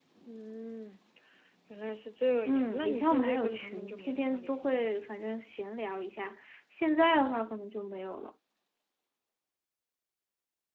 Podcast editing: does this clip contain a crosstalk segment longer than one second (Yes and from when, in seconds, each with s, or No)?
Yes, from 2.4 s